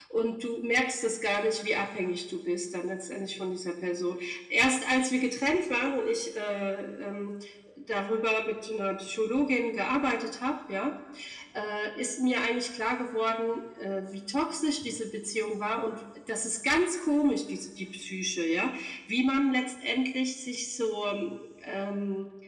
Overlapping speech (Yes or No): No